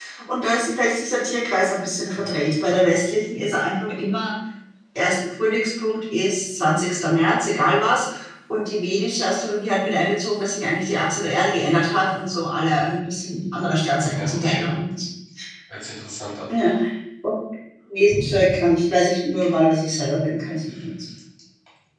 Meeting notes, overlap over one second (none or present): none